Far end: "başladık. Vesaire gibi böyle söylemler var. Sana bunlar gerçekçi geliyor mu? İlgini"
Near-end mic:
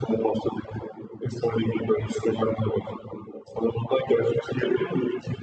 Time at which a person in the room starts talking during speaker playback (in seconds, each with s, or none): none